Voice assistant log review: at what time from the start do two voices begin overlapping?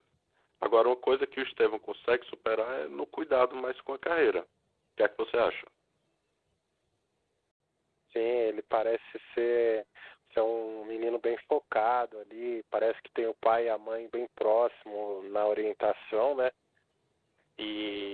none

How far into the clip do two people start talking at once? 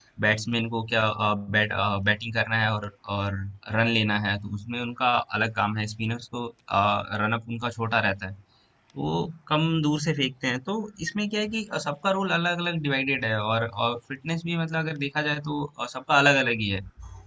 none

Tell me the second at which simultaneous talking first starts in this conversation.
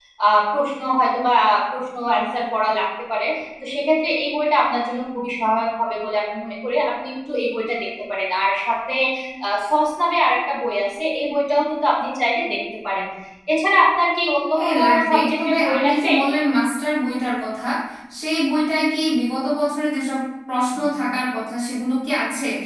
14.5 s

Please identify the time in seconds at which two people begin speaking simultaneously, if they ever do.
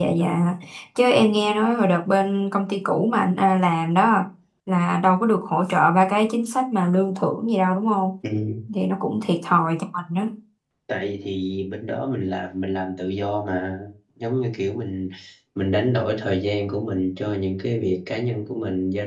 none

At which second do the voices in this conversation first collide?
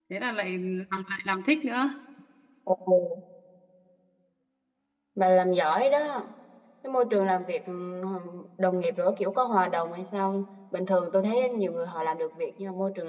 none

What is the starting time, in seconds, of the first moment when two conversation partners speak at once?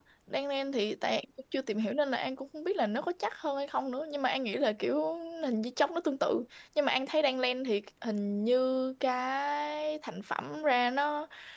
none

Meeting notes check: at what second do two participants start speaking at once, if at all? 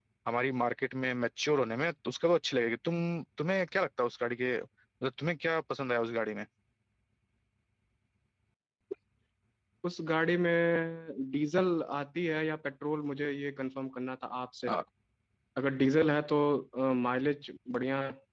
none

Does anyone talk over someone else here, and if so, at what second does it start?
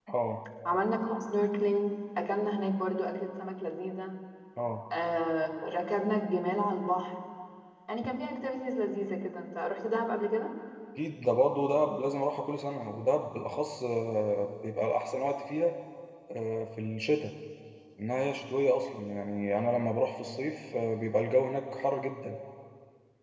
none

